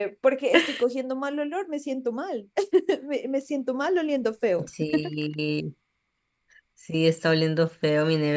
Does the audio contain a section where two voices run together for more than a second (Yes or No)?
No